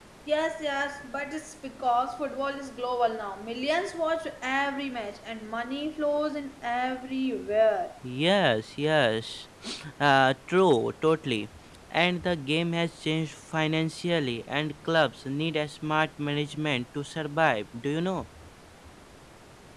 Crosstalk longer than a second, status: none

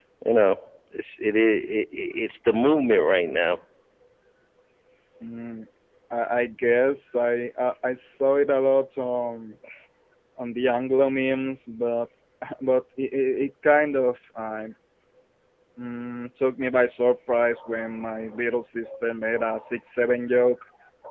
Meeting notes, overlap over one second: none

